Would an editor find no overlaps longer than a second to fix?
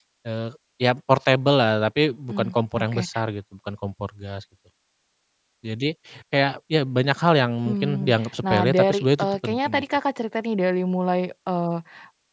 No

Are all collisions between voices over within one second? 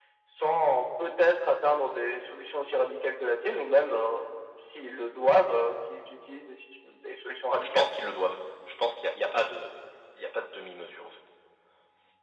Yes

